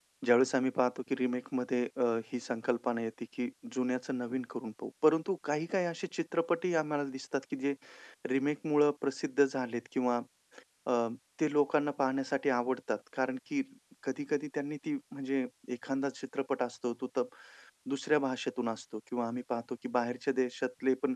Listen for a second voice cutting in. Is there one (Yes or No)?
No